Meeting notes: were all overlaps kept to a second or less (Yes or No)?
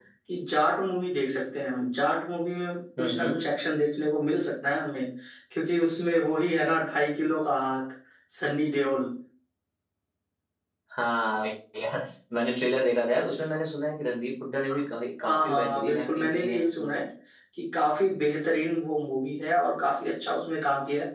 No